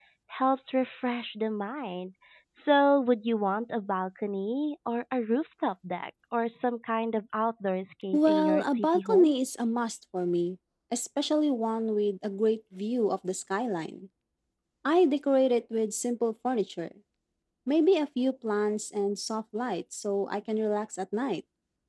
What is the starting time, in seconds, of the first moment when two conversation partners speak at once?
8.1 s

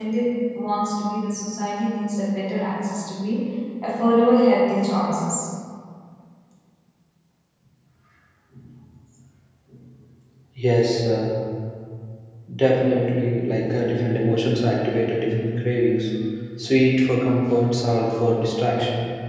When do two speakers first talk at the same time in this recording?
none

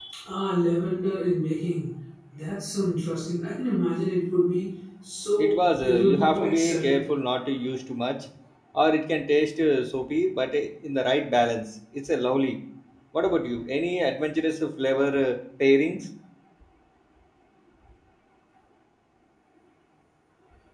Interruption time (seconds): 5.4 s

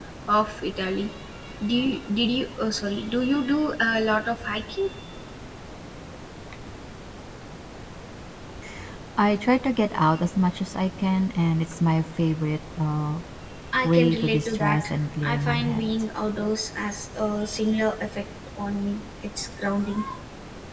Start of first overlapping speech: 13.8 s

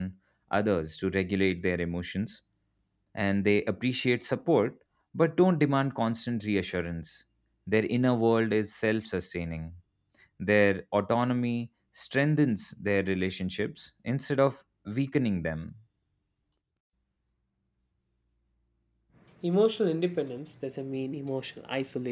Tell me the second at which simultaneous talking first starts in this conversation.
none

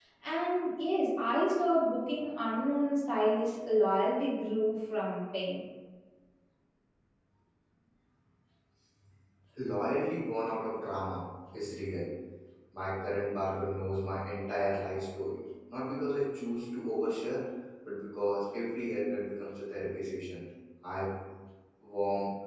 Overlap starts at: none

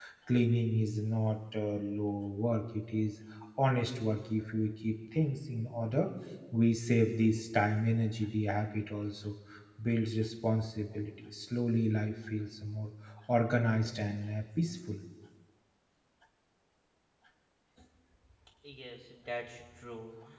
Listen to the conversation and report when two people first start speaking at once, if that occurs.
none

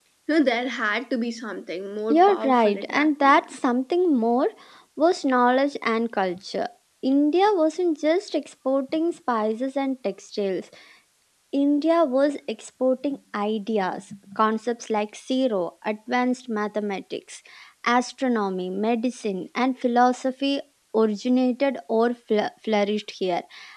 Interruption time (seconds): 2.1 s

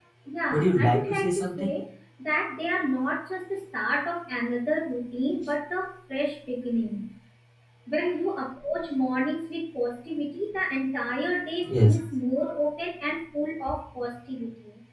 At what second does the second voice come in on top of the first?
0.5 s

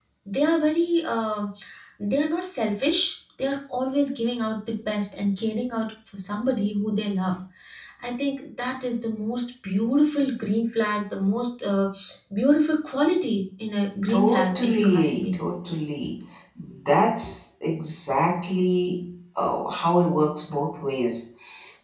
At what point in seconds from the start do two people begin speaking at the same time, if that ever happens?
14.1 s

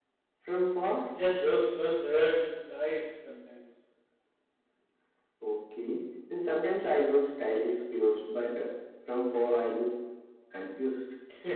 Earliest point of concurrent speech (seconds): none

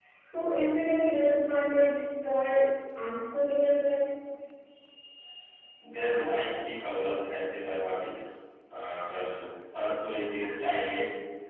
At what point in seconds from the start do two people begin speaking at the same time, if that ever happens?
none

